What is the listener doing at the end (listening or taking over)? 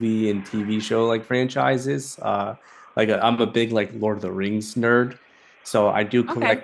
listening